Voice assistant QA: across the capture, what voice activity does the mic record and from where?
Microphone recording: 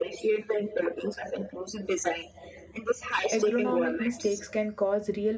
both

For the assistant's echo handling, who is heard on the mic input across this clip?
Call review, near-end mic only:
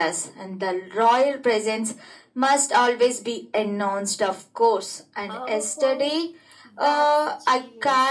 both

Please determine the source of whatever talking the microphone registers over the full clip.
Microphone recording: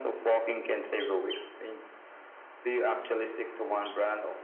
echo only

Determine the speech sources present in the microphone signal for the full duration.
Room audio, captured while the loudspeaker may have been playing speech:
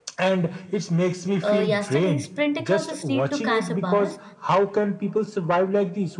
both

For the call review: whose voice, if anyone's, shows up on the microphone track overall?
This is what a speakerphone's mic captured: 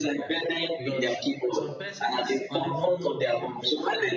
both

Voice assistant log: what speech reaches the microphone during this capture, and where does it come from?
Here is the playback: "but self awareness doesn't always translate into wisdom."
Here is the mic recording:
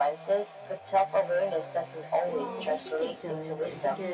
both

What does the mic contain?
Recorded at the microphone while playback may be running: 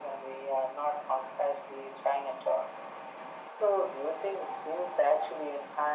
echo only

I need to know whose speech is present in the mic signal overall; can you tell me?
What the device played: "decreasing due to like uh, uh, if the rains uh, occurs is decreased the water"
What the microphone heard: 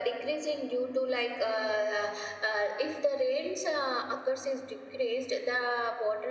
echo only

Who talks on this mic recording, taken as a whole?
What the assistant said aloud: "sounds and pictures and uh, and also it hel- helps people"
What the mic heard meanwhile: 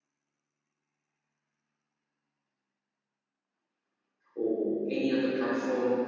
user only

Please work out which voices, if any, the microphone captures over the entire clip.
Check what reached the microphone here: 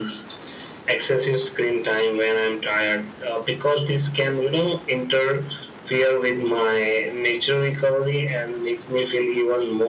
echo only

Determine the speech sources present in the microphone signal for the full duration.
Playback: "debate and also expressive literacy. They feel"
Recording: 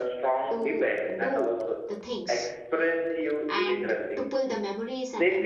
both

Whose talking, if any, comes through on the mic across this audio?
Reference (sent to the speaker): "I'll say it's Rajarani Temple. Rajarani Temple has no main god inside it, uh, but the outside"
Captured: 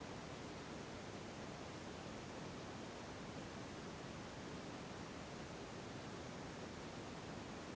neither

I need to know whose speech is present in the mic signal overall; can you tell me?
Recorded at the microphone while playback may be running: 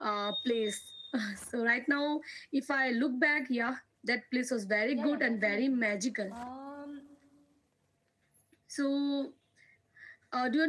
both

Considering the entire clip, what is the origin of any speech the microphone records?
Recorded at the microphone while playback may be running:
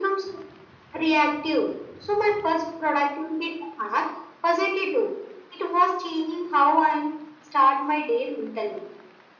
echo only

